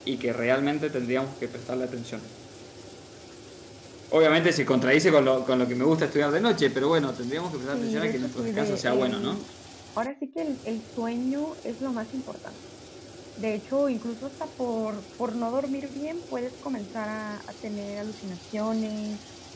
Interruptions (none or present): present